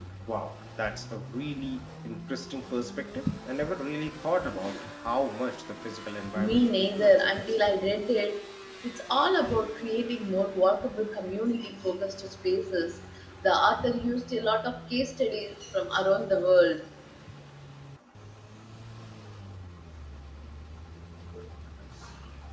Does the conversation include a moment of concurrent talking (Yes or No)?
Yes